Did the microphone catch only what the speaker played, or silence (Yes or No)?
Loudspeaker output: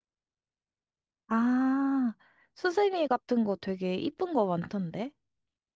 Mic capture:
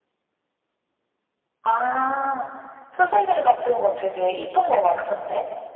Yes